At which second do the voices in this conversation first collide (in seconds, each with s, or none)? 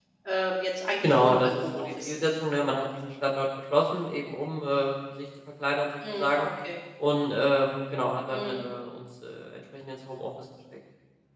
1.0 s